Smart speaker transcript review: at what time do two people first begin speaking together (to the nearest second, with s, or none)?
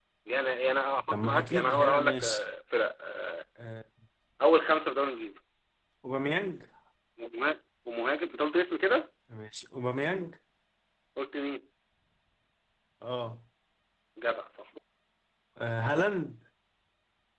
1 s